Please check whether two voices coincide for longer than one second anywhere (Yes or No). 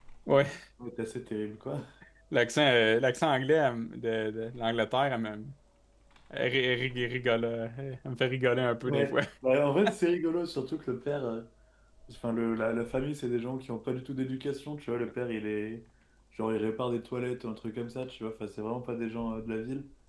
No